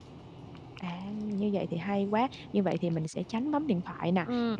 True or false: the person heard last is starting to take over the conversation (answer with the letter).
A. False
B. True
A